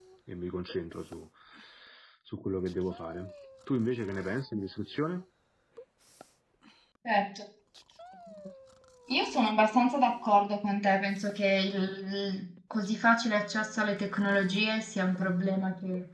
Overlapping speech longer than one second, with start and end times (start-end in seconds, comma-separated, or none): none